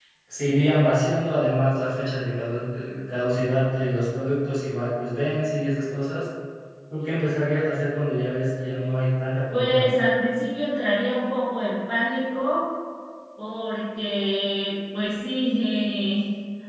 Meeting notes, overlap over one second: none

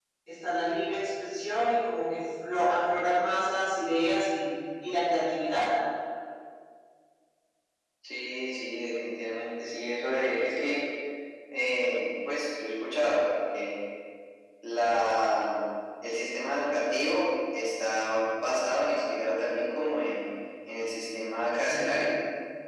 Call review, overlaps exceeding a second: none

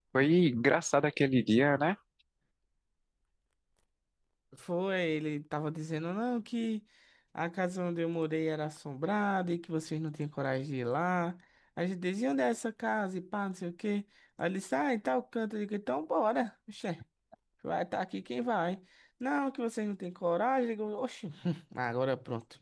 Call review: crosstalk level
none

